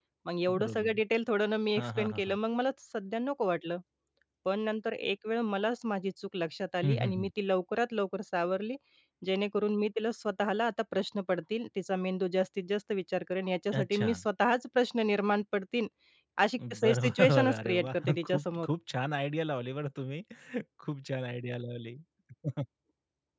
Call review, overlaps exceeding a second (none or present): present